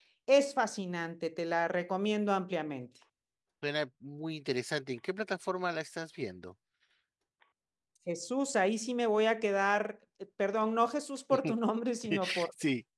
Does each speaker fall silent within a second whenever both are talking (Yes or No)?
Yes